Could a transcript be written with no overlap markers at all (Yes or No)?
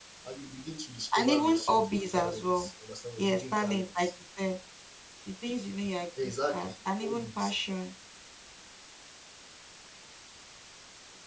No